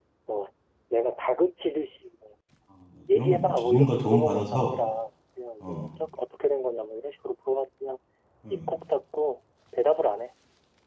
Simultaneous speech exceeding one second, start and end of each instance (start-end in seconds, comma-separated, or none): 3.1-4.7